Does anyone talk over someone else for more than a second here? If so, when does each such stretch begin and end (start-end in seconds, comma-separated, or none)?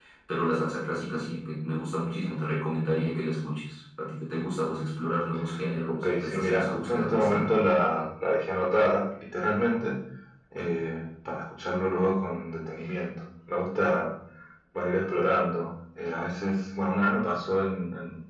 5.8-7.5